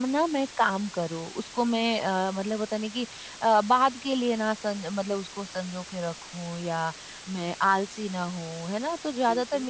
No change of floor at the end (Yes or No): Yes